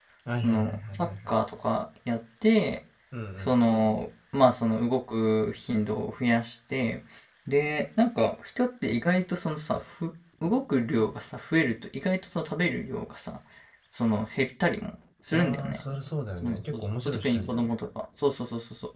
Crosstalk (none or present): present